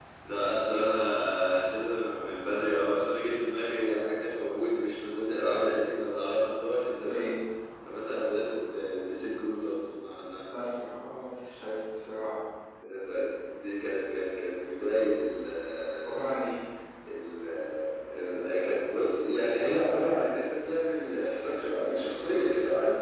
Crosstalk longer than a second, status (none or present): none